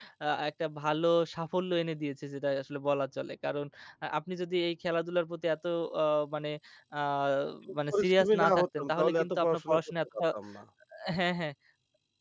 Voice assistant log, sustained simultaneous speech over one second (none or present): present